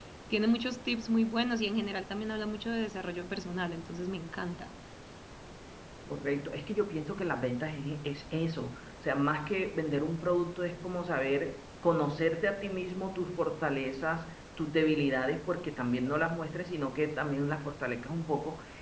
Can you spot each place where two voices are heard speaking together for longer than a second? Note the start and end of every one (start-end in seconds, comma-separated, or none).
none